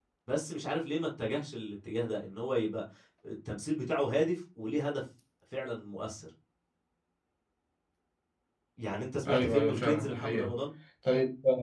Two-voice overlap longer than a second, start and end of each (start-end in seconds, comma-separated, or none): 9.3-10.5